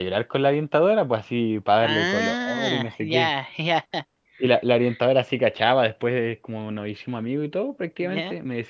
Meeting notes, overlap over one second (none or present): present